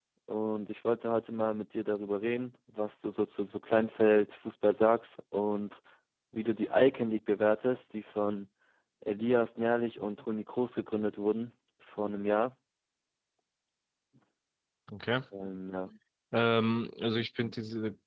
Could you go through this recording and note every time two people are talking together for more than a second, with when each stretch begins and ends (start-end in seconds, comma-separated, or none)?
none